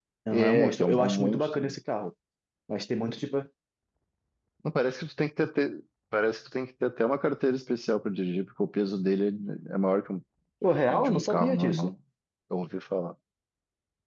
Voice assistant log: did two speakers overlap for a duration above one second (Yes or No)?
Yes